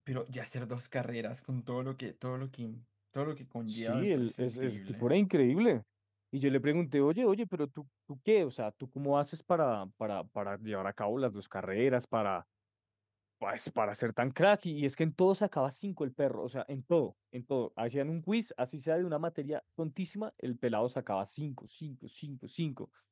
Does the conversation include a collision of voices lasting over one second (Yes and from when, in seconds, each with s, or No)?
Yes, from 3.7 s